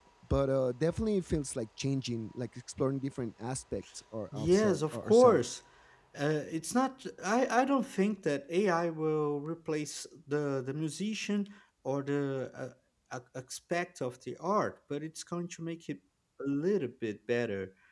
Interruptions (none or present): present